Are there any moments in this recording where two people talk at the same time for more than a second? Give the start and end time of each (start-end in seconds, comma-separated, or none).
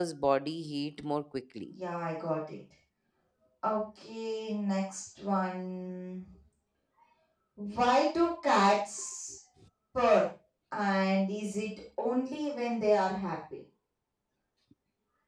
none